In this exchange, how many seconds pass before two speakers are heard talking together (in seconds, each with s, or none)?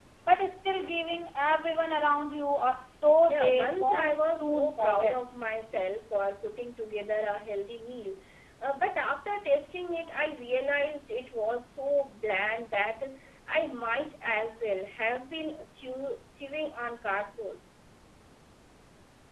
3.3 s